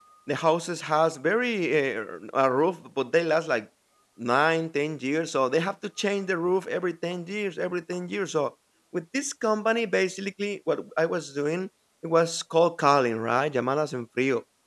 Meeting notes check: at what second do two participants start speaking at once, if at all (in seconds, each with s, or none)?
none